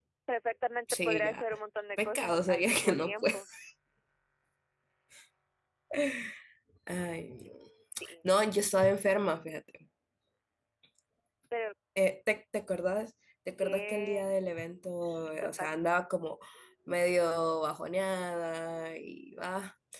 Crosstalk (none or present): present